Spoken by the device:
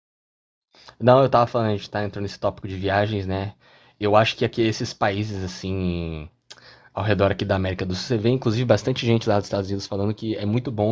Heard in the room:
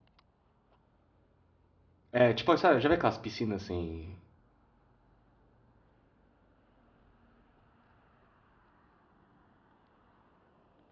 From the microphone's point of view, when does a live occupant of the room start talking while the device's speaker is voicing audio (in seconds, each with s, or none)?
2.1 s